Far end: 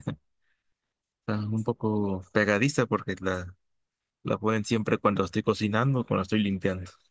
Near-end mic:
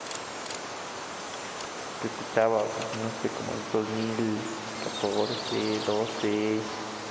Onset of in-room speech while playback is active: 2.0 s

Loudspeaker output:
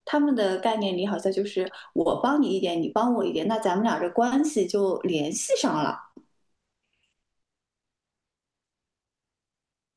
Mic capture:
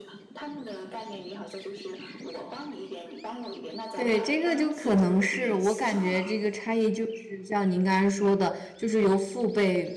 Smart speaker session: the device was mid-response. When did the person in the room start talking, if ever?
3.9 s

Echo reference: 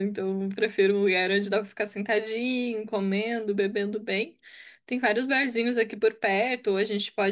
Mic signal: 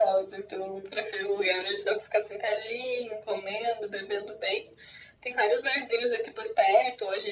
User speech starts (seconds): none

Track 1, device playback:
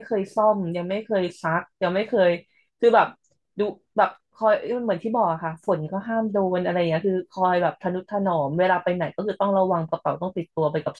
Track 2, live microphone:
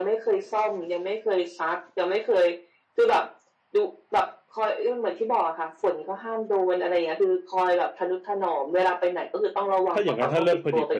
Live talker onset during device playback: 9.9 s

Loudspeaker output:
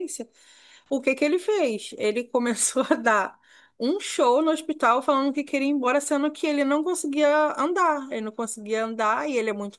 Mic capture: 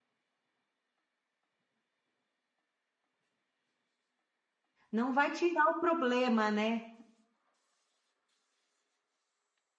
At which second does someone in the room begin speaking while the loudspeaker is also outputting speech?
4.9 s

